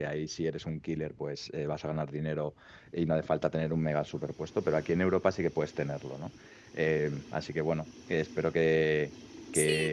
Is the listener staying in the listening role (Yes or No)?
No